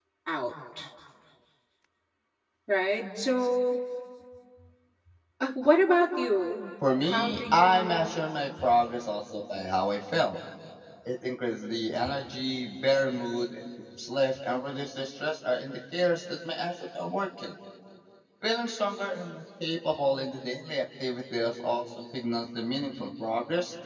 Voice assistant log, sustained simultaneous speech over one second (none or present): present